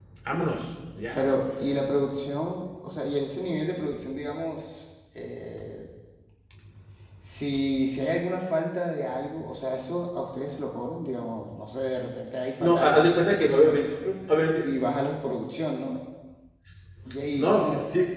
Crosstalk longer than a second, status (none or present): present